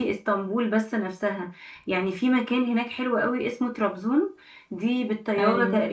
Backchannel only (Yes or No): Yes